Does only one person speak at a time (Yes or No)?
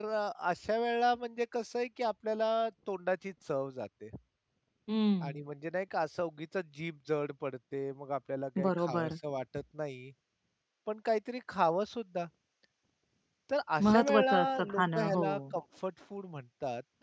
No